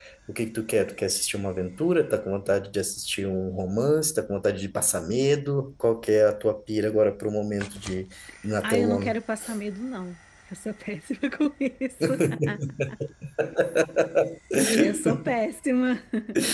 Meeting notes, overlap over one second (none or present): none